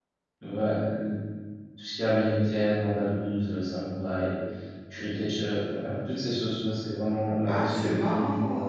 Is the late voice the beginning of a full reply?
Yes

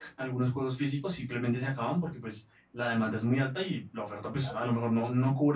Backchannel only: Yes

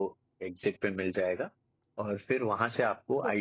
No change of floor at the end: Yes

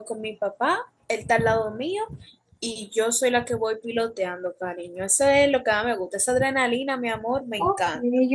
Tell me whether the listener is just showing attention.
No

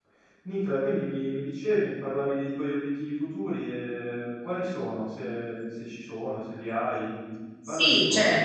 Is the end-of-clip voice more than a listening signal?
Yes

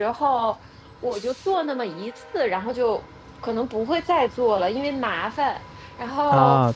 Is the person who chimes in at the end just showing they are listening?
Yes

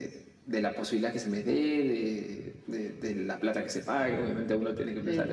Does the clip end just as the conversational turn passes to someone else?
No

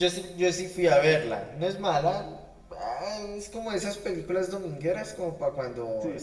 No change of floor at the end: No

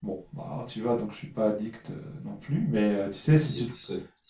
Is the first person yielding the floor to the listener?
Yes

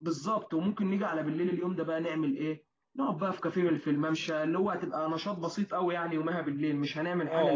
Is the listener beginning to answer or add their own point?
Yes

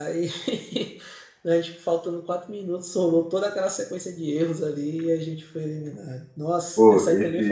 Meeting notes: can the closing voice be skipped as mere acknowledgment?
No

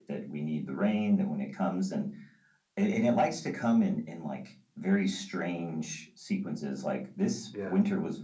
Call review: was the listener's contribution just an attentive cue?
Yes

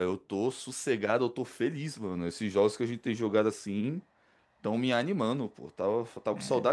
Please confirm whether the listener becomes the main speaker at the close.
No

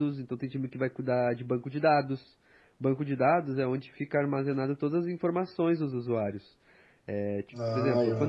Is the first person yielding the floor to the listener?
Yes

